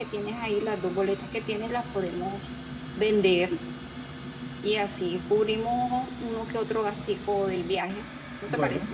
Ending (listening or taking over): taking over